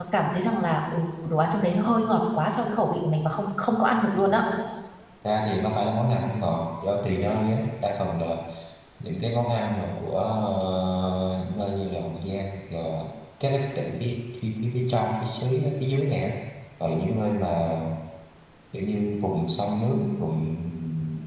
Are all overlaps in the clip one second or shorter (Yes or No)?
Yes